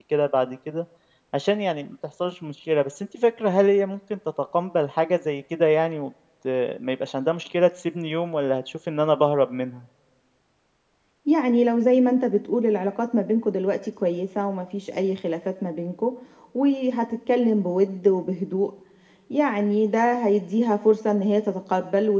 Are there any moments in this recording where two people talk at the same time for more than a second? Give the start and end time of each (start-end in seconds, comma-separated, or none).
none